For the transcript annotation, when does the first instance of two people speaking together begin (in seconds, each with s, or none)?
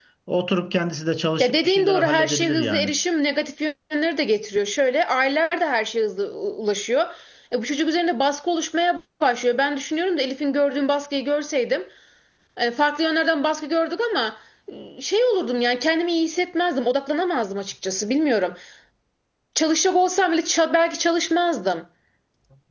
1.4 s